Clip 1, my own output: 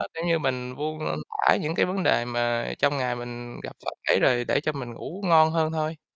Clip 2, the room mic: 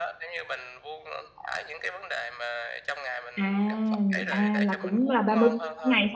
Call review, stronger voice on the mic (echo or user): user